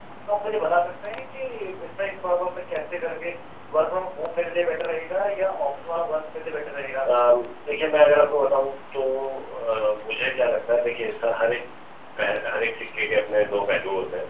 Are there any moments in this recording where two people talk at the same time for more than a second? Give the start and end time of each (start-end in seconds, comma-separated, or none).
none